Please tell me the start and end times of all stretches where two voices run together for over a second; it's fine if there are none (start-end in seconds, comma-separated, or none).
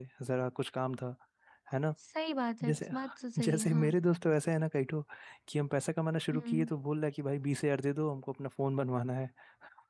none